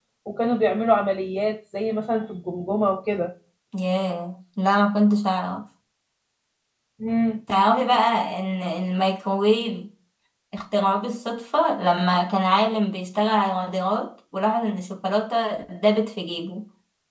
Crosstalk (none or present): none